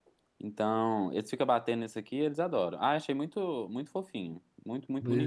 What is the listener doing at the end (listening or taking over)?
taking over